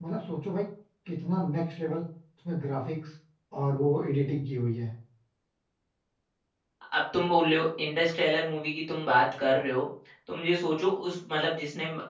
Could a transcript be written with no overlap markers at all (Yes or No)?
Yes